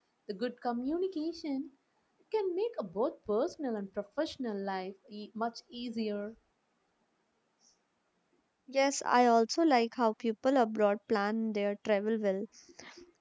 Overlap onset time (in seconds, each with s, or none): none